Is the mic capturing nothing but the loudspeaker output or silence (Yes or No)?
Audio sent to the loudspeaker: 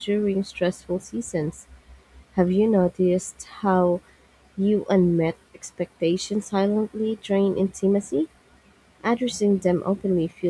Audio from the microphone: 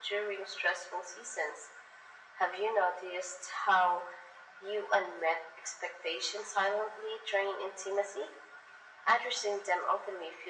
Yes